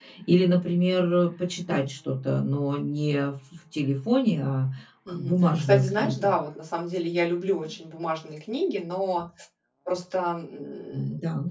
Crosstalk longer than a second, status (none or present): present